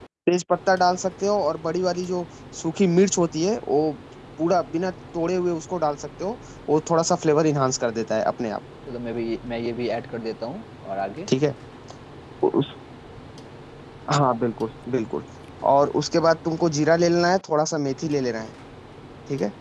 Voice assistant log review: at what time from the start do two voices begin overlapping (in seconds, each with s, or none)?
none